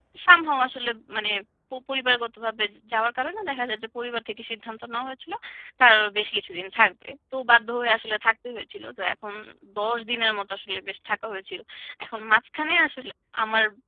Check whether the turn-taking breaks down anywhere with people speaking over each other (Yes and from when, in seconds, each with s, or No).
No